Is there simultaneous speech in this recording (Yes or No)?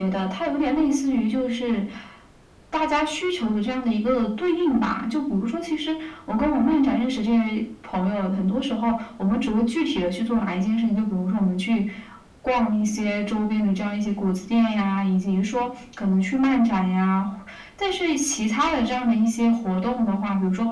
No